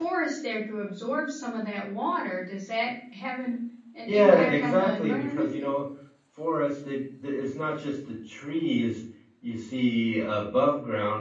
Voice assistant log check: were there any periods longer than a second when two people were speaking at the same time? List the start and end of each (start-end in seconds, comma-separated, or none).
4.1-5.5